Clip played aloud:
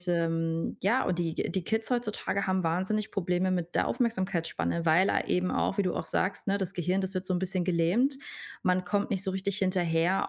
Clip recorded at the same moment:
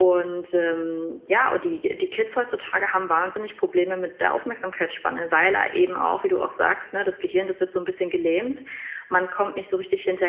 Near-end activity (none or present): none